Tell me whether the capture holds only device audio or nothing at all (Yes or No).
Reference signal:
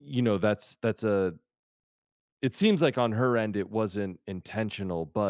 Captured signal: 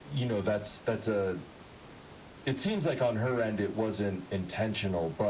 Yes